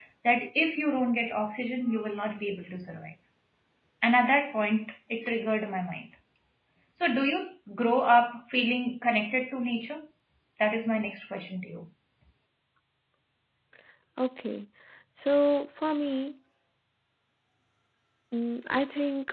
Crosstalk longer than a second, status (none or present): none